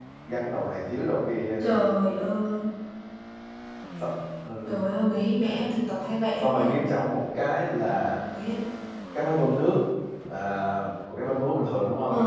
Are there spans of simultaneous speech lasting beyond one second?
No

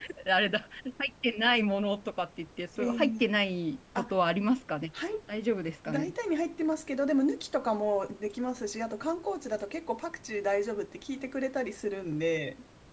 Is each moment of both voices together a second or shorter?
Yes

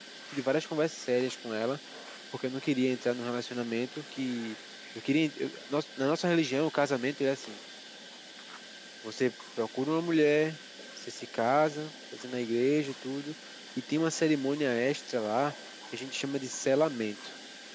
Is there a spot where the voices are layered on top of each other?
No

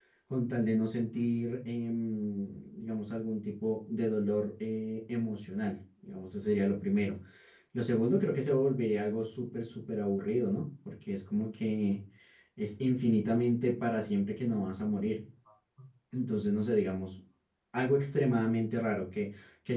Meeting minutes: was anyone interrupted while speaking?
No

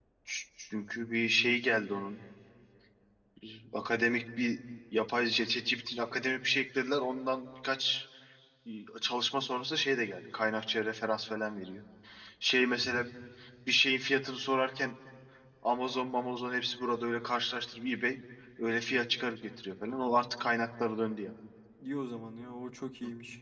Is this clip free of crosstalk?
Yes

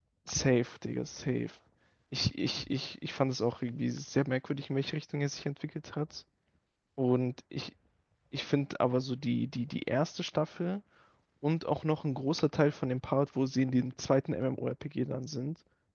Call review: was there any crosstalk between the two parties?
No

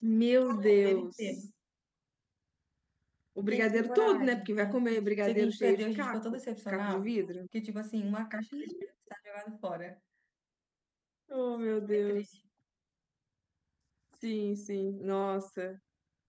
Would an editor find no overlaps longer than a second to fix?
No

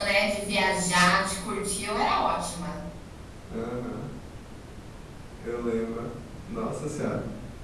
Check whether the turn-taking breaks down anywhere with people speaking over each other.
No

